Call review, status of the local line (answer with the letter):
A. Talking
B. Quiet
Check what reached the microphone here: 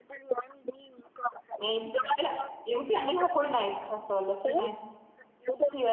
A